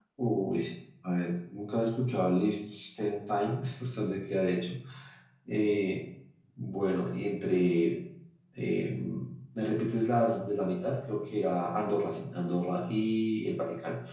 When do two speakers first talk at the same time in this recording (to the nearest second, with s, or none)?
none